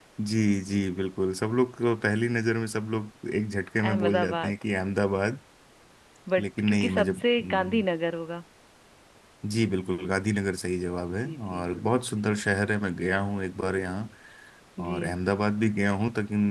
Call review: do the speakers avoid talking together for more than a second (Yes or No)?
No